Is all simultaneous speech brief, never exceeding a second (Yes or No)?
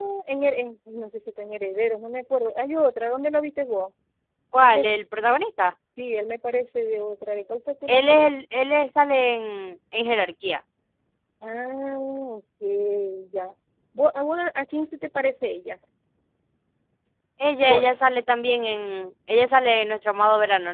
Yes